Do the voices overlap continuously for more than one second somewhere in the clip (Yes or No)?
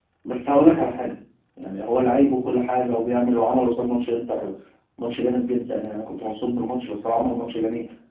No